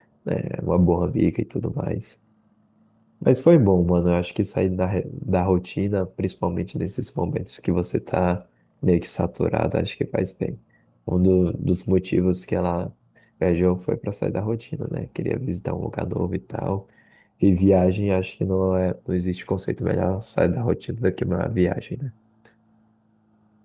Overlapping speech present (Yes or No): No